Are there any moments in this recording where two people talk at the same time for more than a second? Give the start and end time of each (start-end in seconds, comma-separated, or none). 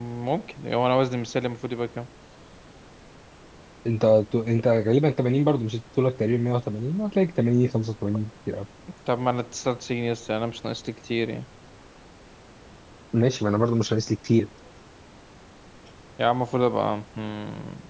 none